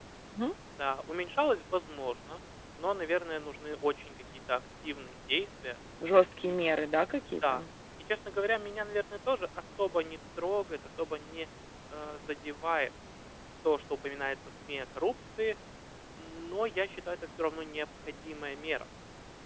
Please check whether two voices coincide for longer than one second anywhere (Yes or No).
No